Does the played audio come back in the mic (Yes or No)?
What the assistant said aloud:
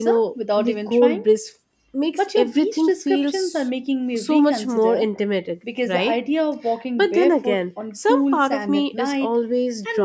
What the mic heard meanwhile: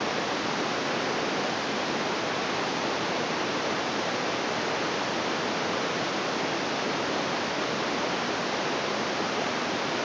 No